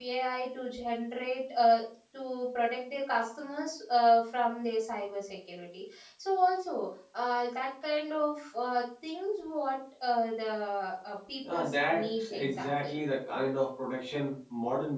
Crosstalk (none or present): present